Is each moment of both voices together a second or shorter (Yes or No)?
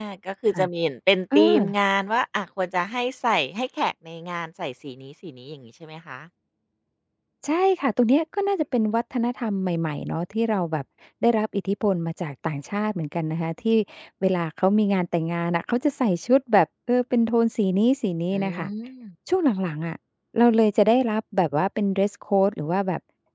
Yes